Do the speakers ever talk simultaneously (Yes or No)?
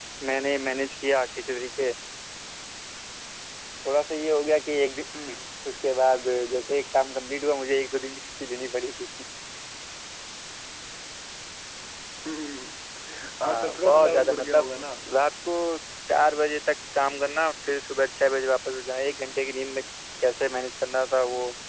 Yes